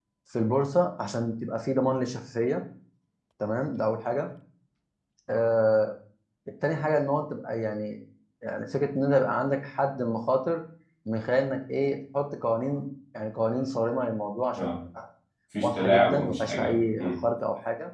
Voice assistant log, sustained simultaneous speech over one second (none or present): present